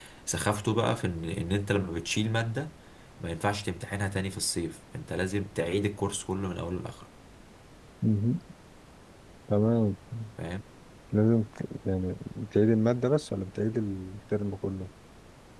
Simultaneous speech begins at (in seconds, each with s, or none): none